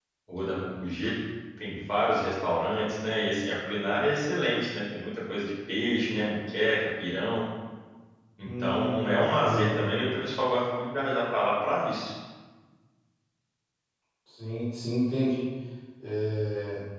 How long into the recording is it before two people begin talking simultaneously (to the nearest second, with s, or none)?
8 s